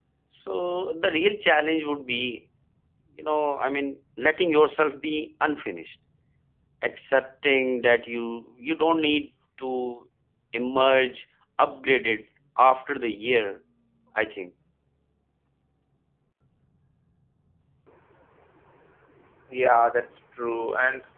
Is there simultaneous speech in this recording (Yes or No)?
No